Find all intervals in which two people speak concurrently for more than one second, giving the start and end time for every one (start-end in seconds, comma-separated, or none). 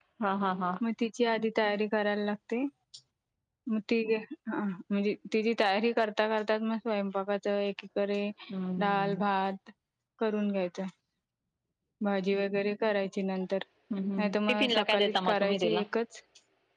14.2-15.8